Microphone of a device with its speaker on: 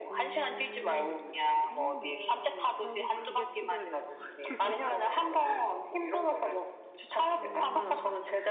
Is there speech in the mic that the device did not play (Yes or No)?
Yes